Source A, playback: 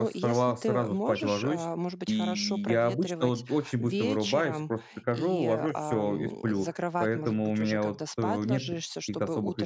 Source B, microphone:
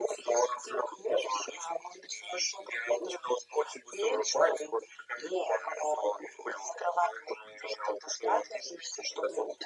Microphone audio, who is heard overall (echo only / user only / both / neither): echo only